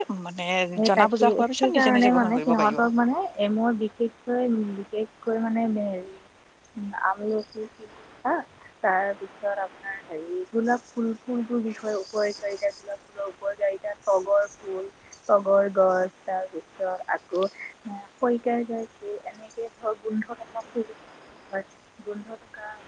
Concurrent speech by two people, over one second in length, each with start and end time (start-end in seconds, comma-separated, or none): 0.9-2.8